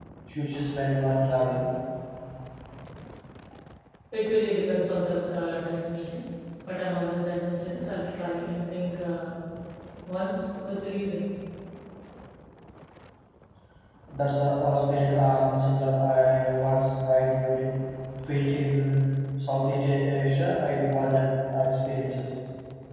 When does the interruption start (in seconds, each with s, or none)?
none